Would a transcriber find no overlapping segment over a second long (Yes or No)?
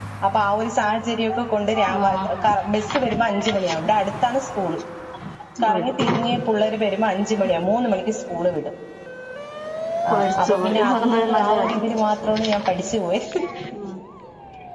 No